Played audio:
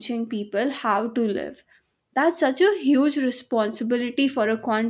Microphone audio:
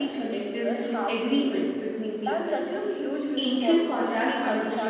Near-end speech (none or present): present